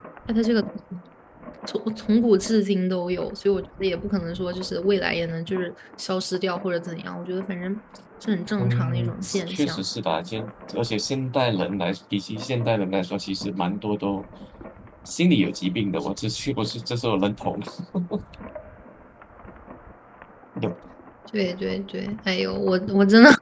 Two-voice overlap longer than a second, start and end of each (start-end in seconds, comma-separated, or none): 8.6-9.8